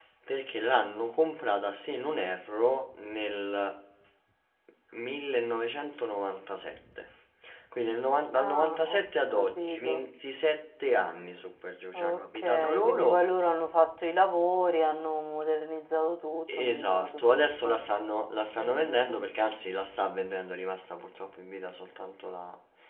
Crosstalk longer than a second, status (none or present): present